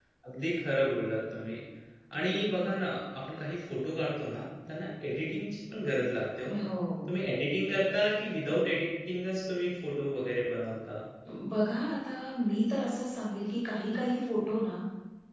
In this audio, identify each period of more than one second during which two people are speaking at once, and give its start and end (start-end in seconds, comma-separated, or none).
none